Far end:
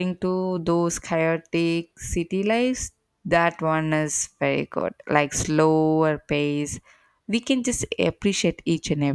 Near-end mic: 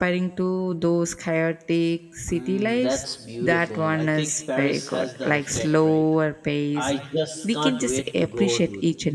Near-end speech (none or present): present